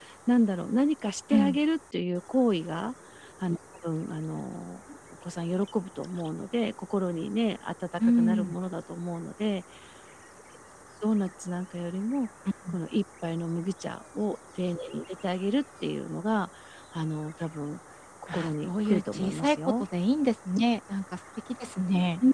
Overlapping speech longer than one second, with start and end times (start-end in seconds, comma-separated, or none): 18.3-19.9